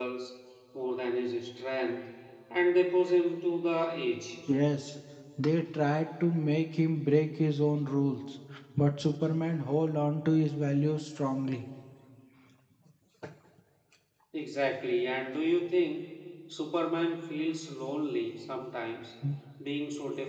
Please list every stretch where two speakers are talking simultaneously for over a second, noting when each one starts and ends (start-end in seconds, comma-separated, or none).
none